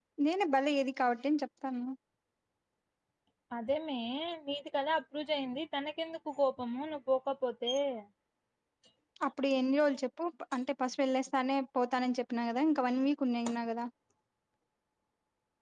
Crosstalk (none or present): none